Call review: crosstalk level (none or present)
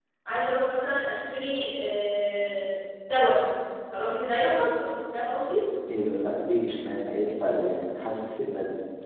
none